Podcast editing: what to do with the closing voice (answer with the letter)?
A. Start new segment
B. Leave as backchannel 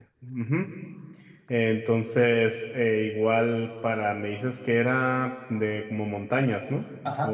A